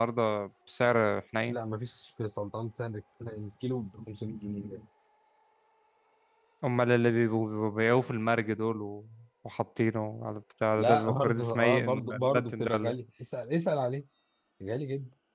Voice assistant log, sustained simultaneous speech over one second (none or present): present